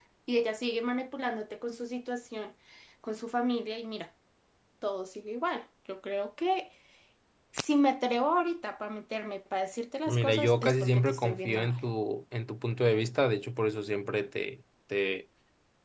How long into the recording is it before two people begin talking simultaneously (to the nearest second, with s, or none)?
10 s